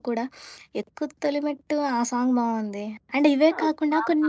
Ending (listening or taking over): taking over